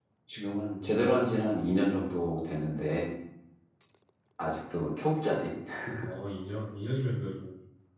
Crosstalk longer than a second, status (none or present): none